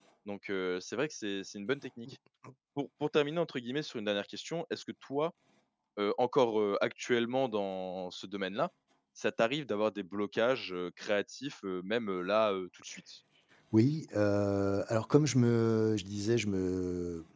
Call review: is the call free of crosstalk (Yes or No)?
Yes